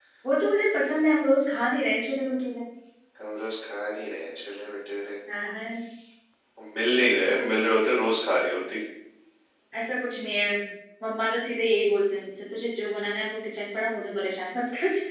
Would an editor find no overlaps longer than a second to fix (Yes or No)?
Yes